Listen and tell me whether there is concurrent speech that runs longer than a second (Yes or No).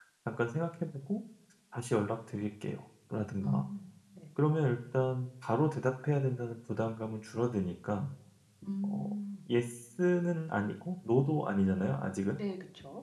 No